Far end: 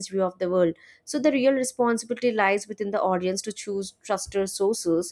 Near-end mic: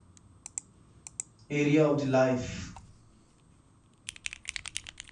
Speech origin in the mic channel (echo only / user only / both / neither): user only